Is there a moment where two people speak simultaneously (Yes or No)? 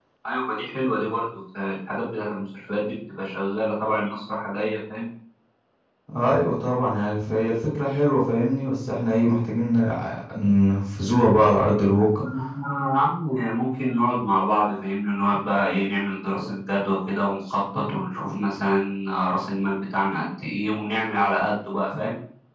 No